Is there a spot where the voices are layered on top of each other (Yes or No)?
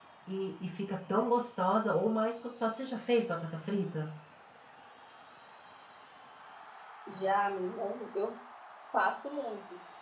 No